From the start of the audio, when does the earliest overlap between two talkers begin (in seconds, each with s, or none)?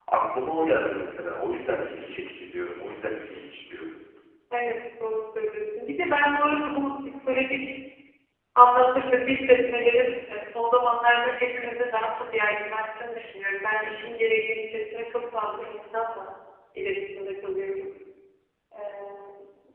none